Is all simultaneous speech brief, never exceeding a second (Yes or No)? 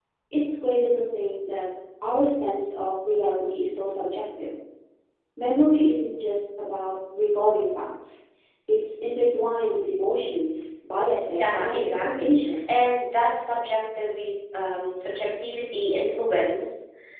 No